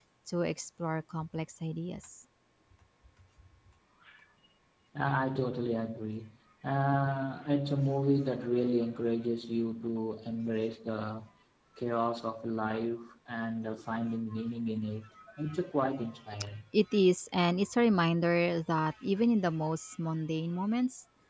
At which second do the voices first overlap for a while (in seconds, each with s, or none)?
none